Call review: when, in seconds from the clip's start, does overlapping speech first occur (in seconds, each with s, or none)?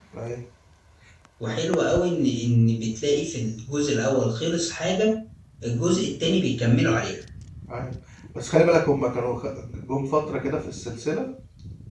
none